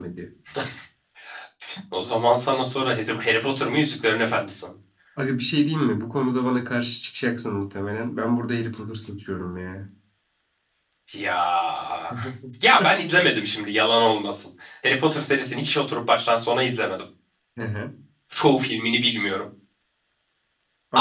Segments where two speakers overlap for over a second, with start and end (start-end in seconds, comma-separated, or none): none